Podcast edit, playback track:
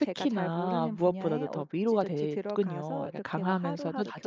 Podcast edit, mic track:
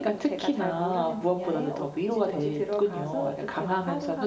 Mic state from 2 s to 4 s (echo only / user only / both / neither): echo only